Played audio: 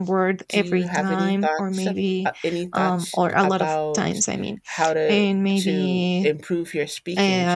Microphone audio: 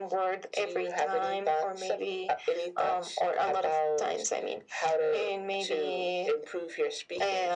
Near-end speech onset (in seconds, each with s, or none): none